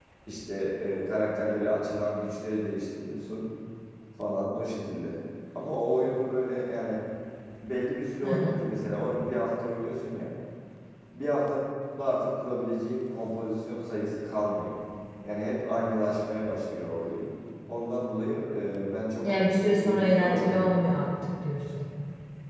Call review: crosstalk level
present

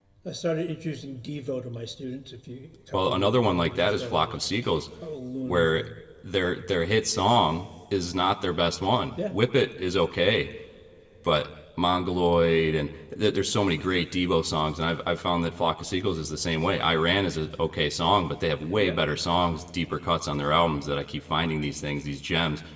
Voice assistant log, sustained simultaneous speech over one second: present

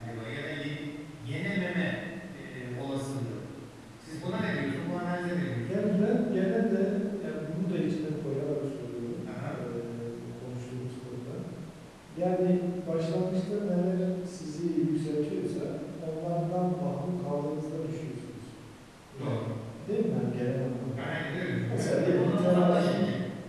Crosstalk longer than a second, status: present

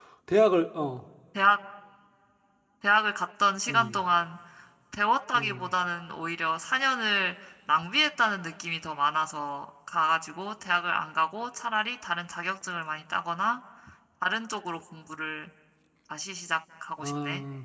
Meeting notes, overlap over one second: none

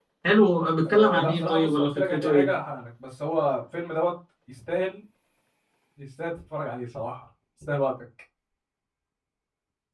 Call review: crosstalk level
present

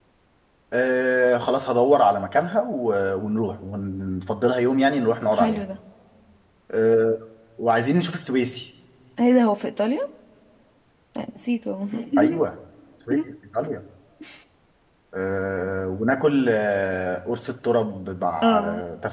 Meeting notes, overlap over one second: none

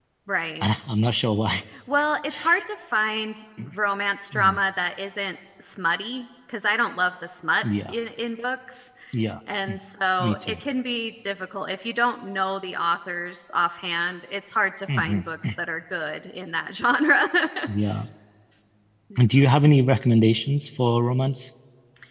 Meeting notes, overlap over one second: none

